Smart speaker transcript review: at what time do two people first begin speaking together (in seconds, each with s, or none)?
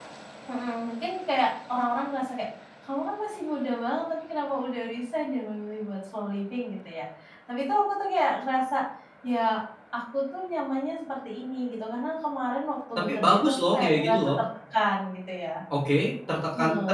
13.2 s